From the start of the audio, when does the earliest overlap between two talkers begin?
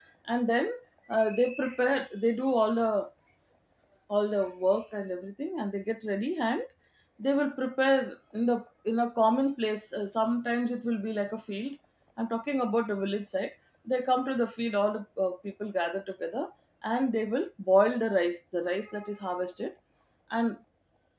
none

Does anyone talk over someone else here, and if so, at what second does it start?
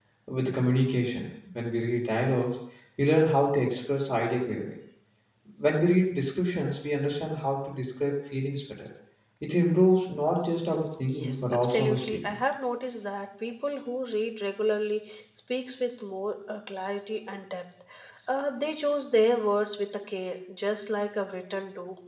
11.1 s

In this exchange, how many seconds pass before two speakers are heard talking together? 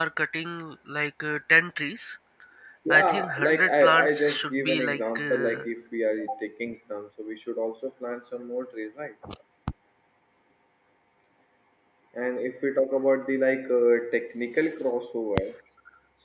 2.9 s

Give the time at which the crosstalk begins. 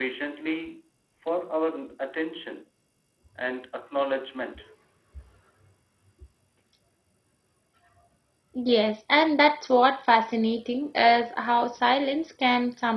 none

